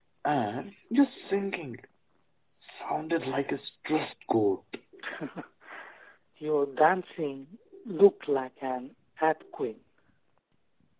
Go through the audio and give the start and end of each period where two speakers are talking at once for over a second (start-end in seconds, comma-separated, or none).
none